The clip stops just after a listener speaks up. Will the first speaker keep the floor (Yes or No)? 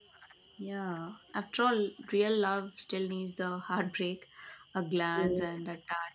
Yes